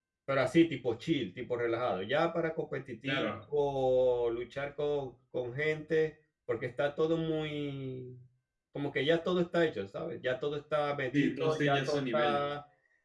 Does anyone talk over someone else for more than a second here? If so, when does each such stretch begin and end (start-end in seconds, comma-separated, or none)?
11.1-12.4